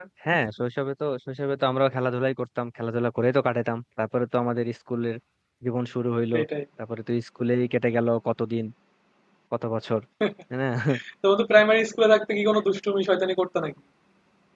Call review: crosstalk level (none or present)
none